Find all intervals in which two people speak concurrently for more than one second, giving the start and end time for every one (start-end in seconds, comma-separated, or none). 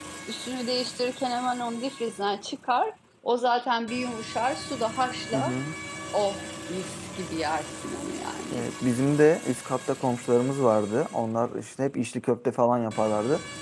none